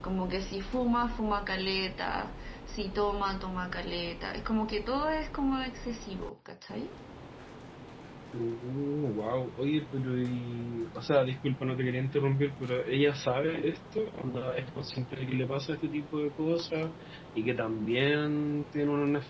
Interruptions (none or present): none